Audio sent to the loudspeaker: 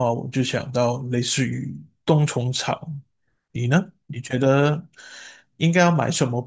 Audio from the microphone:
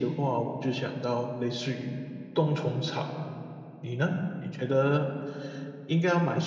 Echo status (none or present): present